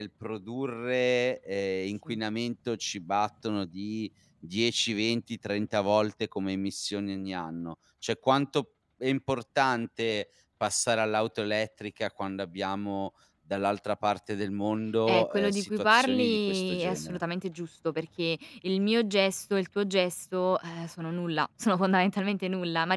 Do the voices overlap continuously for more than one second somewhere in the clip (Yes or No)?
Yes